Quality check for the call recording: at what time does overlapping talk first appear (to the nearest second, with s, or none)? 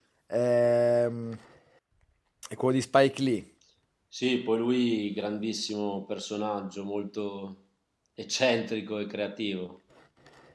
none